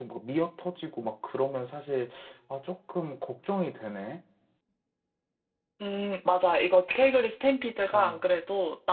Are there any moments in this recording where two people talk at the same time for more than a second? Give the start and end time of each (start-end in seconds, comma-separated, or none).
none